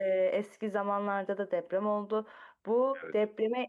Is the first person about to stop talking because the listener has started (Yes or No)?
No